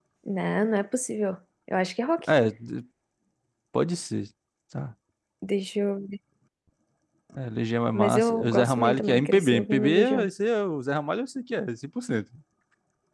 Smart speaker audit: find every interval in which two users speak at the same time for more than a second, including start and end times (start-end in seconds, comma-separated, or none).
7.9-10.3